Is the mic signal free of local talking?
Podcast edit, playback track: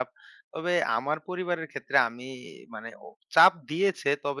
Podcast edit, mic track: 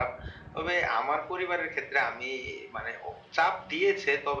Yes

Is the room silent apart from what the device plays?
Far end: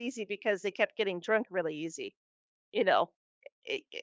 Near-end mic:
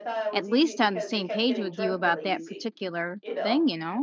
No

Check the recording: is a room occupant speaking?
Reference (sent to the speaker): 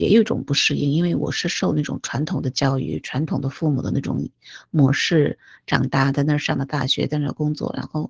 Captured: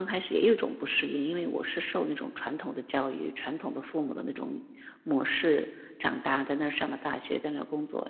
No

